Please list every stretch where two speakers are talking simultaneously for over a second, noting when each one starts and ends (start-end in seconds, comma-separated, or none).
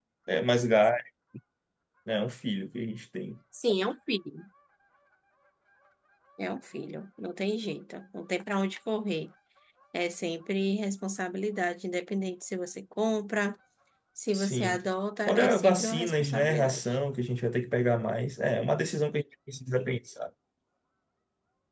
15.3-16.8